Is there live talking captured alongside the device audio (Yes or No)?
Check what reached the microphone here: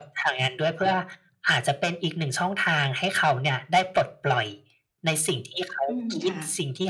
Yes